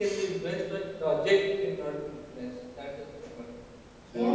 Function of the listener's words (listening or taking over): taking over